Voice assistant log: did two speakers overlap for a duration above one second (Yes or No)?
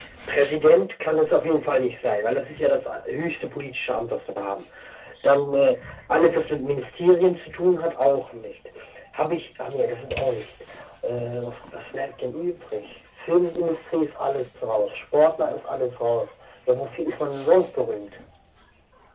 No